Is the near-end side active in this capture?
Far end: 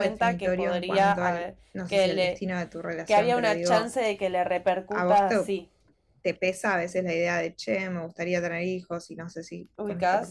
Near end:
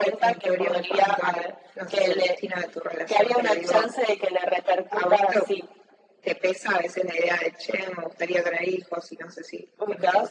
No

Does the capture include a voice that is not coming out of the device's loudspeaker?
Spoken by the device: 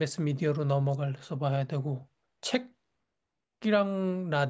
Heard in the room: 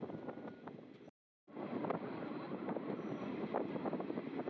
No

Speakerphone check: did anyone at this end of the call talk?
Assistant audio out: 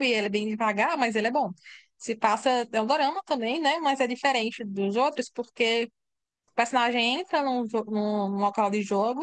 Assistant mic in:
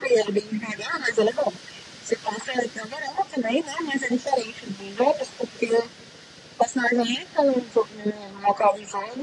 No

